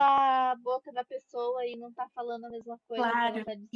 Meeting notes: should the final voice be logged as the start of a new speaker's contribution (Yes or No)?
Yes